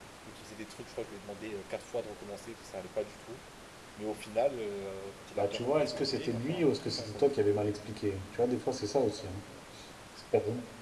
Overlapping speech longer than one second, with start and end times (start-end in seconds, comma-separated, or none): 5.4-7.3